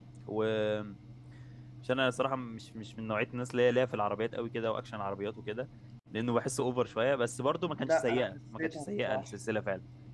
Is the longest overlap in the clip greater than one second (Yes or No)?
Yes